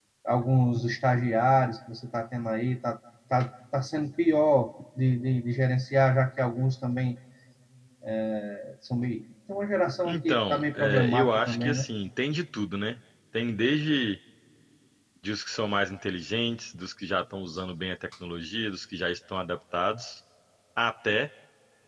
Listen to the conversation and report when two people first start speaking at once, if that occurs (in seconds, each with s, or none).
10.0 s